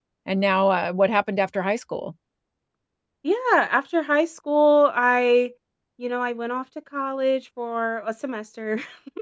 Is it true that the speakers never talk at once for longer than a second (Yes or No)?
Yes